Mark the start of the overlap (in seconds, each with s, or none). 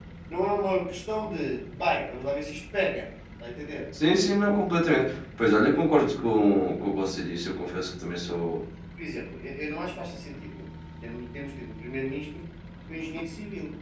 none